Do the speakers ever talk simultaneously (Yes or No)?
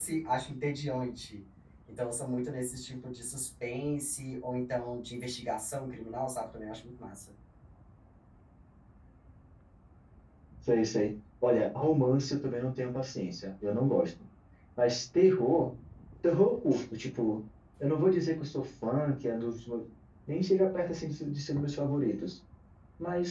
No